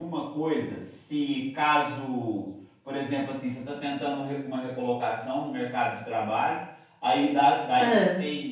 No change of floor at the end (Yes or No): Yes